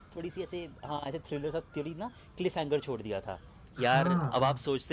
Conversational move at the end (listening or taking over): listening